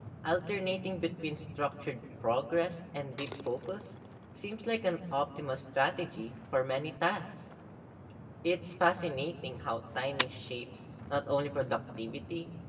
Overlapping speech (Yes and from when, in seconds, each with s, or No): No